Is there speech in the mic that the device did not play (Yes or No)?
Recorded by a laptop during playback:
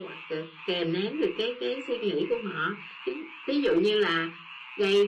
No